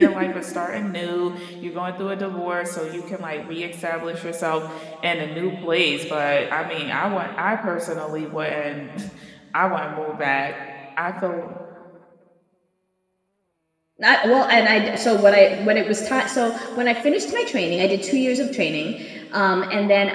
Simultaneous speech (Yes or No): No